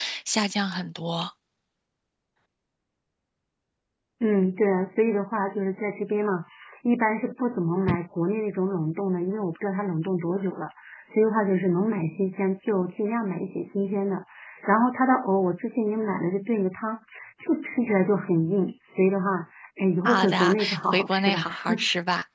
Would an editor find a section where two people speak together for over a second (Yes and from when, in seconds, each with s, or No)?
Yes, from 20.0 s